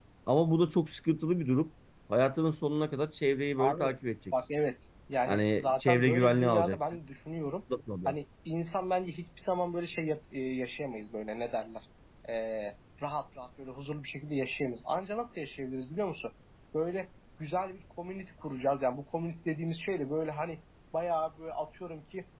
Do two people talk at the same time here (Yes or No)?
Yes